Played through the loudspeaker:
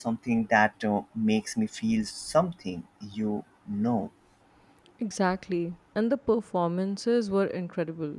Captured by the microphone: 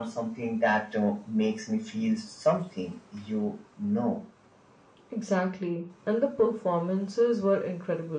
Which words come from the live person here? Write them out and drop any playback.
none

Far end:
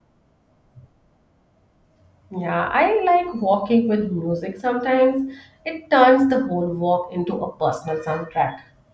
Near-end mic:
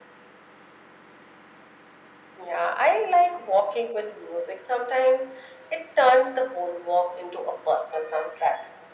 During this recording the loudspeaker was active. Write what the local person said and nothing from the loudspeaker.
none

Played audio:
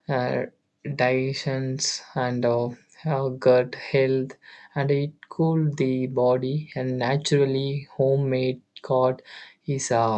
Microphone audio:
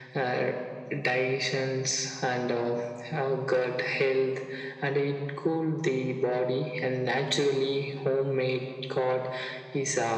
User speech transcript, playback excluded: none

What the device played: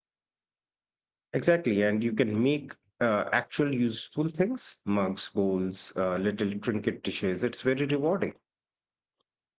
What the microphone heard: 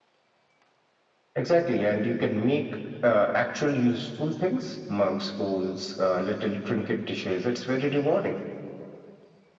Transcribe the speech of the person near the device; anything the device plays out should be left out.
none

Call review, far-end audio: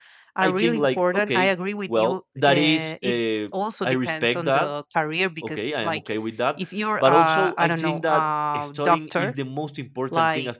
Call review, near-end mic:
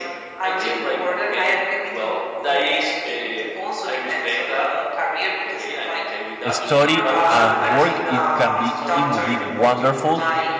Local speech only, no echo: study and work, it can be it will be wonderful.

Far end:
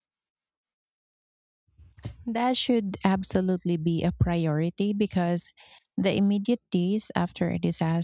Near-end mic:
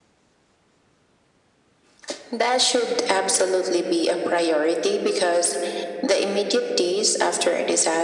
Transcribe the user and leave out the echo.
none

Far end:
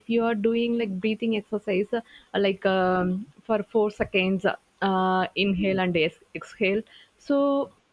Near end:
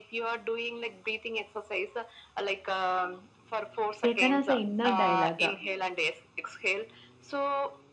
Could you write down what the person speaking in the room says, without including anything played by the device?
taken as an inner dialogue.

